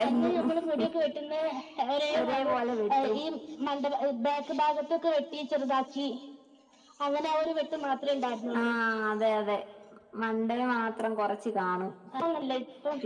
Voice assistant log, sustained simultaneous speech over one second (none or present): none